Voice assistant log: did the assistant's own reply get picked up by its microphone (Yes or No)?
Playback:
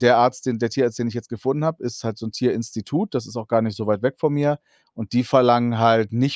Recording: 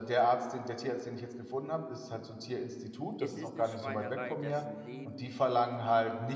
Yes